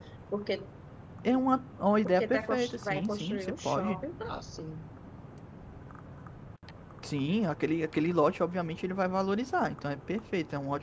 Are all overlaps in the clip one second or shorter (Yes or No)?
No